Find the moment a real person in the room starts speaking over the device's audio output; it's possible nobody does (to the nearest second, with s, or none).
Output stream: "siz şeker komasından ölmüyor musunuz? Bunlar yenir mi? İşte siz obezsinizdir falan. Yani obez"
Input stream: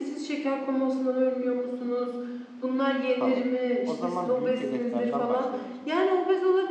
3 s